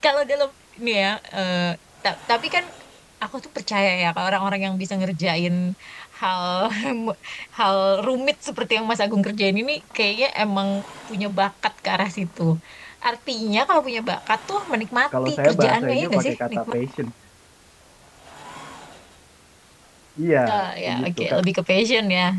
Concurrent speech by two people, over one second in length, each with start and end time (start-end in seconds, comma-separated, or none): 15.3-16.6